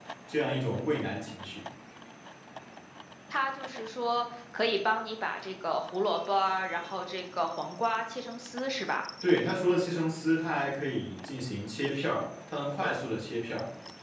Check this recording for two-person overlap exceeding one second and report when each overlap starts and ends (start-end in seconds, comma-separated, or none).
none